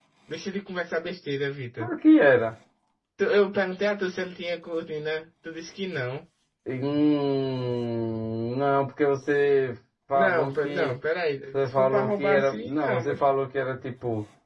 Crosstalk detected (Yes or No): Yes